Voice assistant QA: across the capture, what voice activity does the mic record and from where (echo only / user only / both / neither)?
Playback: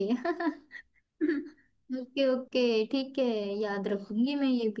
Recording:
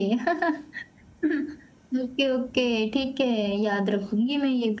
echo only